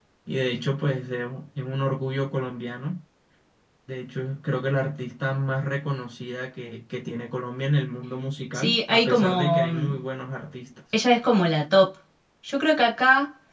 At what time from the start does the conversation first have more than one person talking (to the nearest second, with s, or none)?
9 s